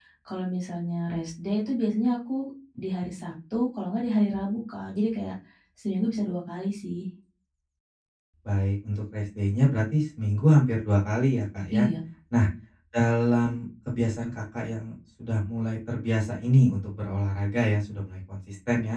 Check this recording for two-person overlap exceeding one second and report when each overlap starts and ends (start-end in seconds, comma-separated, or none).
none